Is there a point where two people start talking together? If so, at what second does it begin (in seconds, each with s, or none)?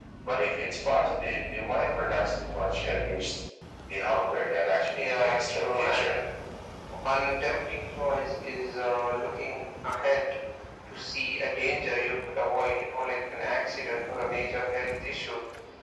4.9 s